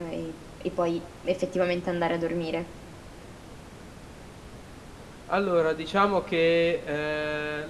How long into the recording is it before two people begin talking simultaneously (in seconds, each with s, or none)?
none